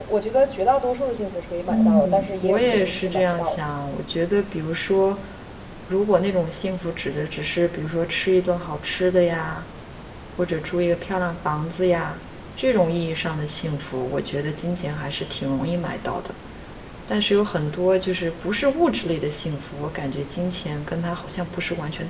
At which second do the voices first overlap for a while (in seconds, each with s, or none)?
1.7 s